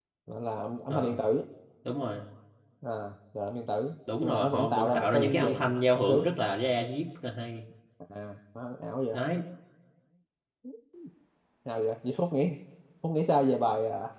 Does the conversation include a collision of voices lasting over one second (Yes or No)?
Yes